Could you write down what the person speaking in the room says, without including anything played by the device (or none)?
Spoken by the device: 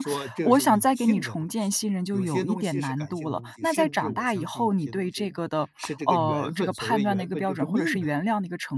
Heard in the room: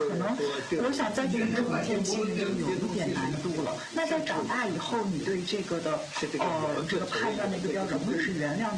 嗯，圆滑也模棱两可，你